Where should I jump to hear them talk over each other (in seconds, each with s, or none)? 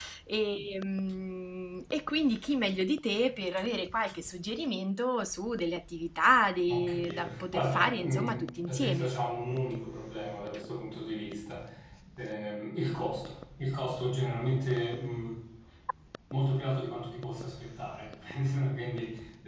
6.7 s